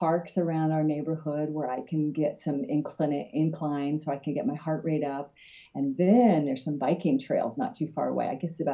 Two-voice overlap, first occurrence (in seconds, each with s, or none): none